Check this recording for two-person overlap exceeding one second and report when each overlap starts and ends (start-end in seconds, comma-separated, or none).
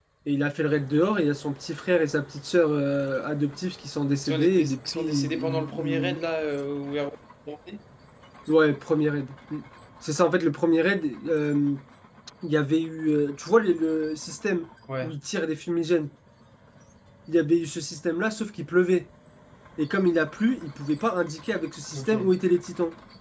4.2-6.2